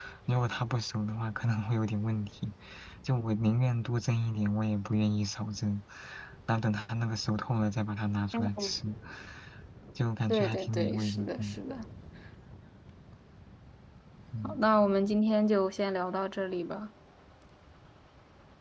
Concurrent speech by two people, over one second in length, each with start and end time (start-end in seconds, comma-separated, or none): 10.3-11.6